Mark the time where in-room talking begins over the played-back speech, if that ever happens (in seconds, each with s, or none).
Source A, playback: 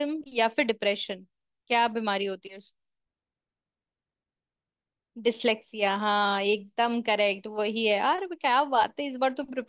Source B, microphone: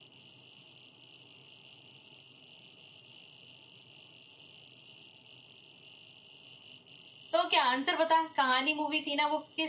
7.3 s